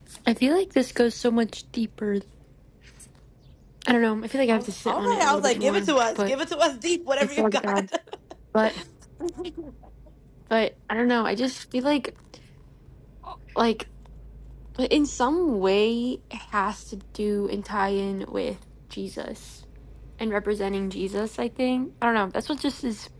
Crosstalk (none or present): present